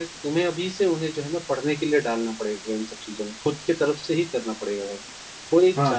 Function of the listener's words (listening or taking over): taking over